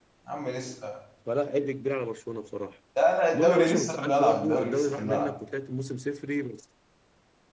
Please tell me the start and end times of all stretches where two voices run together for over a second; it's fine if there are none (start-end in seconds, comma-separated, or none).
3.3-5.3